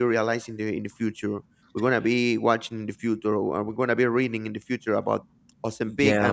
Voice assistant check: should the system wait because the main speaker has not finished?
Yes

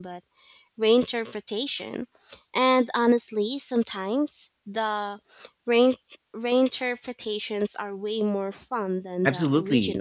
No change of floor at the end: No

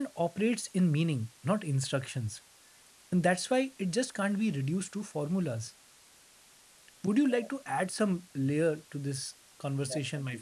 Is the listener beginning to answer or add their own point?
Yes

